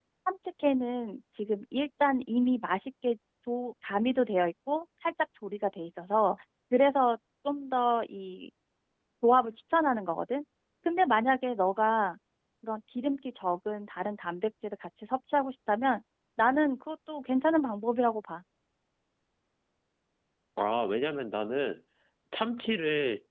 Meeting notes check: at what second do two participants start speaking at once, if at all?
none

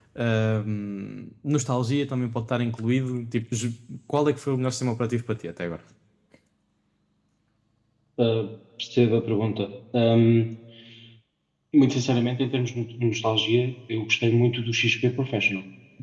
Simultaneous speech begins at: none

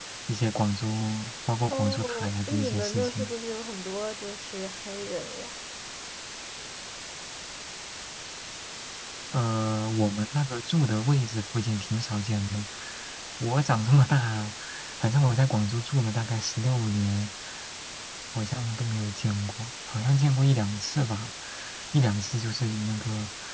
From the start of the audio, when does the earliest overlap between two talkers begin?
1.7 s

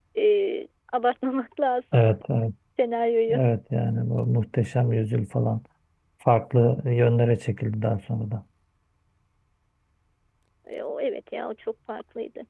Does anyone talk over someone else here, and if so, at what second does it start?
none

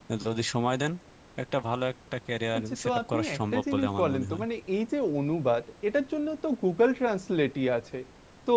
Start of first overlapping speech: 2.8 s

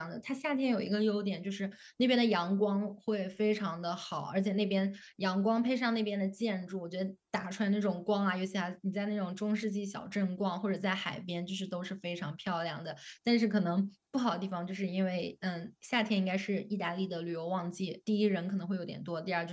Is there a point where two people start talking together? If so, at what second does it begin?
none

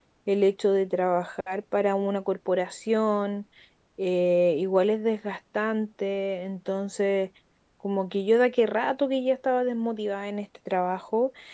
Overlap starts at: none

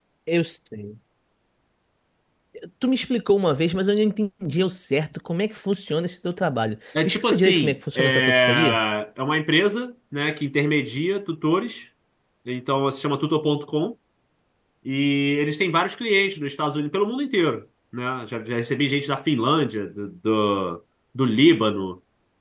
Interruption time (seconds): 7.0 s

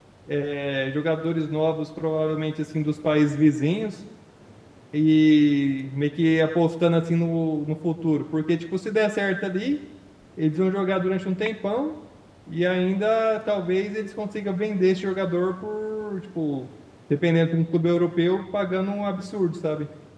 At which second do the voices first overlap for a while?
none

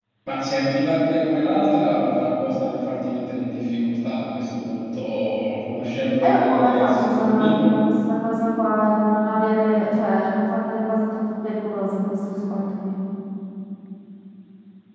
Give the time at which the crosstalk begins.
6.2 s

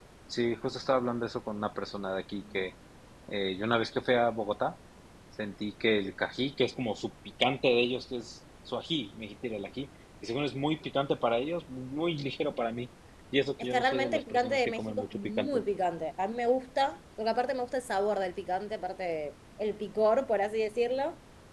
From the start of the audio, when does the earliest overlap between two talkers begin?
13.6 s

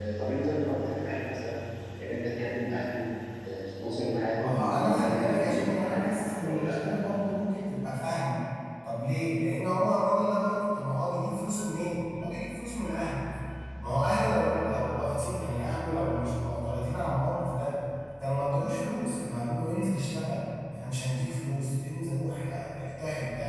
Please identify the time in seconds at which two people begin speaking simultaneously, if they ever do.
4.4 s

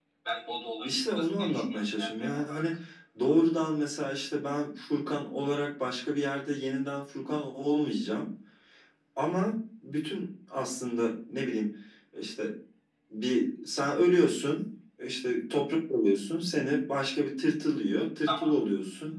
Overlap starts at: 0.8 s

